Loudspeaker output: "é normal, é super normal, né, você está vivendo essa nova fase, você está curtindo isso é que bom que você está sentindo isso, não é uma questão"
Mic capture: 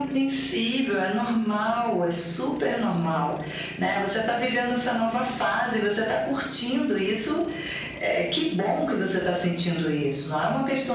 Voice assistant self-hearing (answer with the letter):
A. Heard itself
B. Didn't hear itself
A